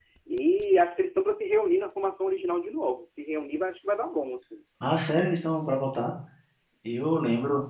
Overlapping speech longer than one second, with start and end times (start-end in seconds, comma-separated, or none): none